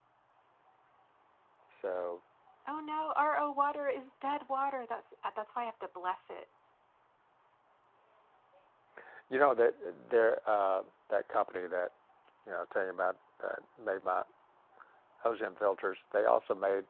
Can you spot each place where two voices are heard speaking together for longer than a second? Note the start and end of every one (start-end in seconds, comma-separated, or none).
none